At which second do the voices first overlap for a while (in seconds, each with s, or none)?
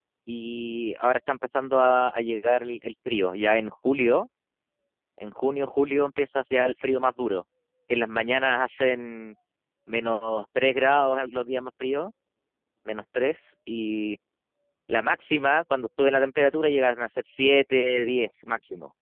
none